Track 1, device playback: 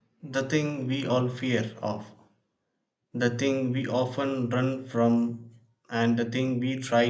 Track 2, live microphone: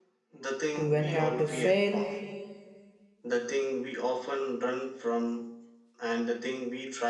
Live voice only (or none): to when we have to fail